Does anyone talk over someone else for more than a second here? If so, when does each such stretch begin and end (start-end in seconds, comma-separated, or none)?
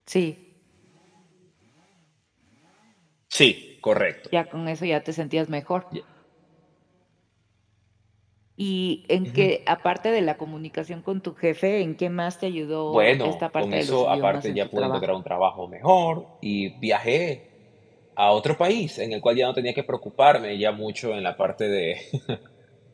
12.9-15.0